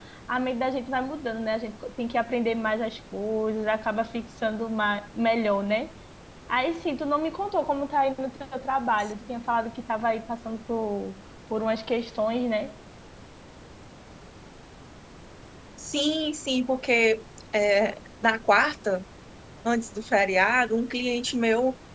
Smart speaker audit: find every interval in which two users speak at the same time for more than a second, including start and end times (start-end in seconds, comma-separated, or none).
none